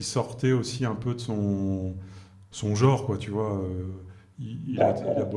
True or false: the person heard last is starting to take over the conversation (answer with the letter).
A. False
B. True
A